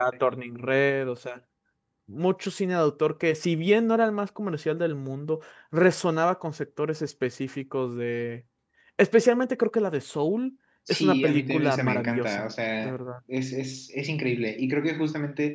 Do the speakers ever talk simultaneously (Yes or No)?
Yes